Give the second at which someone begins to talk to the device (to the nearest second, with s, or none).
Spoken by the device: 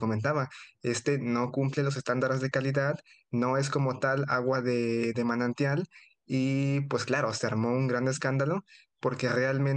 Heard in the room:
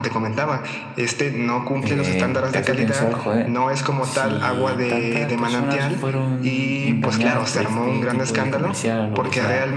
2 s